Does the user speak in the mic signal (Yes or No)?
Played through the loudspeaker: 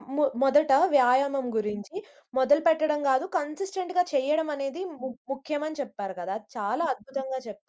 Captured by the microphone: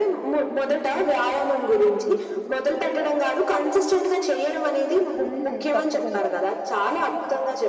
Yes